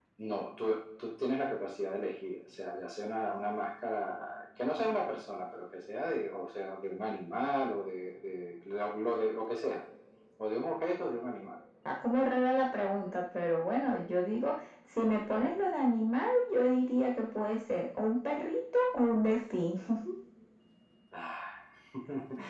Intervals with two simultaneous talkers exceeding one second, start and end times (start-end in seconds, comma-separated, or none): none